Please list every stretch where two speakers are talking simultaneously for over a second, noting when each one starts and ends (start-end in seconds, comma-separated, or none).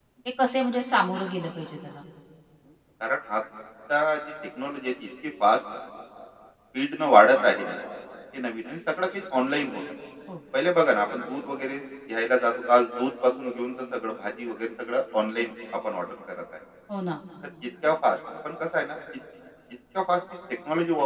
none